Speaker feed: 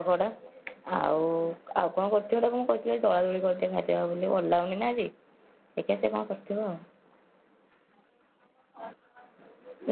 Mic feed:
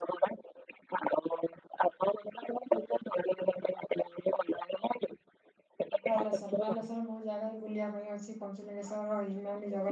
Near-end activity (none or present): present